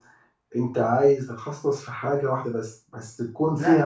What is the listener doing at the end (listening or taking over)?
taking over